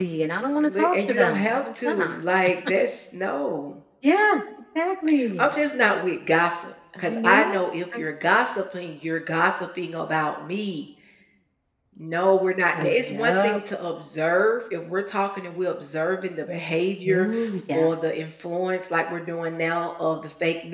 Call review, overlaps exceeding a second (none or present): present